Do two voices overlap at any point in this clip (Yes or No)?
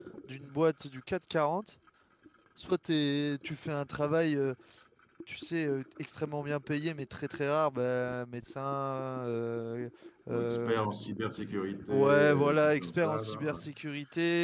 Yes